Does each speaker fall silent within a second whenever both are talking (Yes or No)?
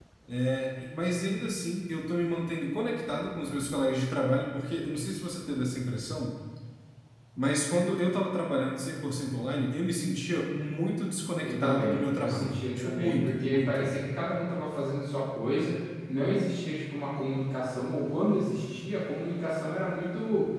No